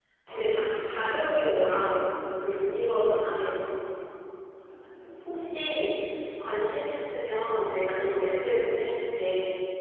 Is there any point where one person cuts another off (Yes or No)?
Yes